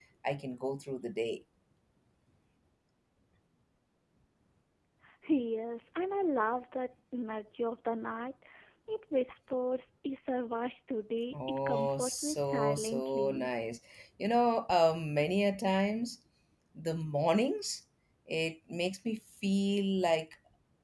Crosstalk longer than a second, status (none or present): present